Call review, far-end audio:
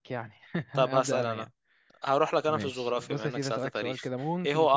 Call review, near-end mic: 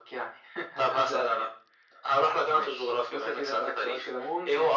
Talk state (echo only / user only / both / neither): echo only